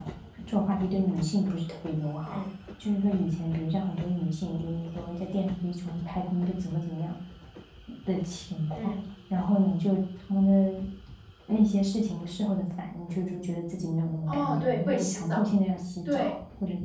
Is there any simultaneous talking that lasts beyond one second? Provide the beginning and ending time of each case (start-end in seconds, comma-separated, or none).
14.3-15.5